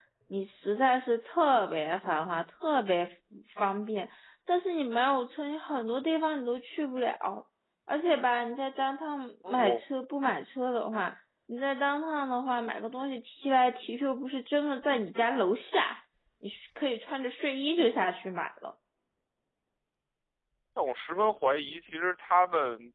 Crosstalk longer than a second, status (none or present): none